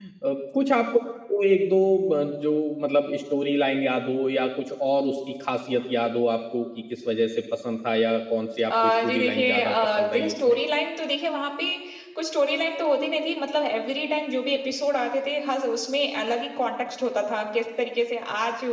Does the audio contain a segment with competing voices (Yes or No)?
Yes